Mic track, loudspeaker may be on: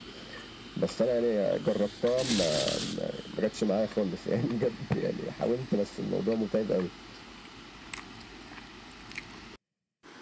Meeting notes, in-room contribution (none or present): none